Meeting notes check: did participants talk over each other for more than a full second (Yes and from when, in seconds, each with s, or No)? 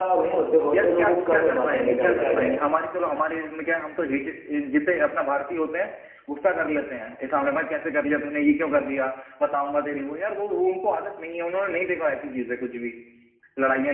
Yes, from 0.7 s